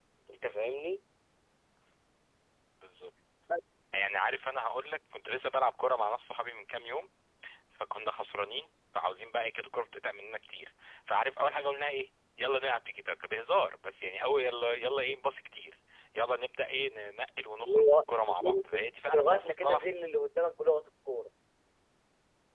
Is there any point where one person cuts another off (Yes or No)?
Yes